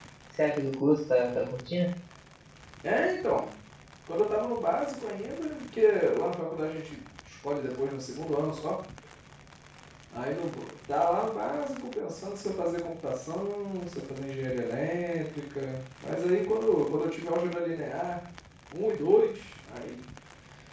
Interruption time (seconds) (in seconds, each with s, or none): none